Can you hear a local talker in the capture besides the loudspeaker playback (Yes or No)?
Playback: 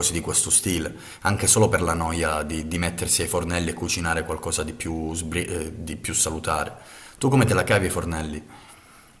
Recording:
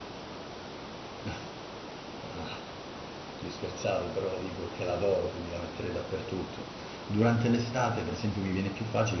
Yes